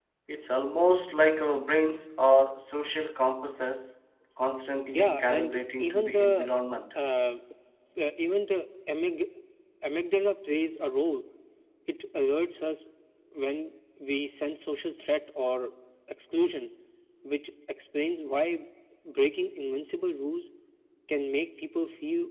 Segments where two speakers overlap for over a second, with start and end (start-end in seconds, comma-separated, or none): 4.9-6.5